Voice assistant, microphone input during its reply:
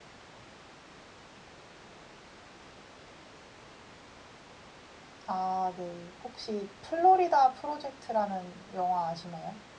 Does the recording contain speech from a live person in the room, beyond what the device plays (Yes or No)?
Yes